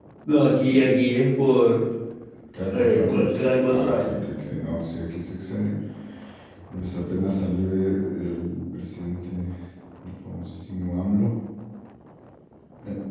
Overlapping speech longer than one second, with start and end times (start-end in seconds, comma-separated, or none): 2.7-4.2